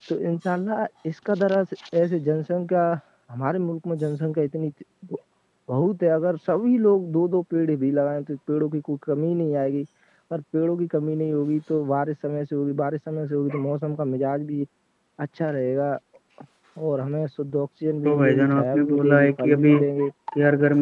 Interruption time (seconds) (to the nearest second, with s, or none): 18 s